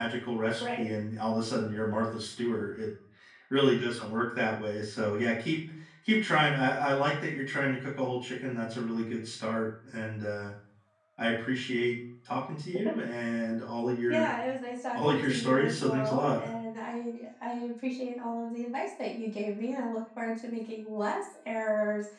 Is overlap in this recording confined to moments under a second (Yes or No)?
No